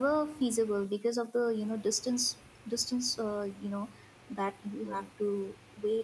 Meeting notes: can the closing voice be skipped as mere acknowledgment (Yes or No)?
Yes